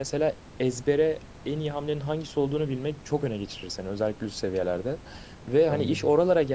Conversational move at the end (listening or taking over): listening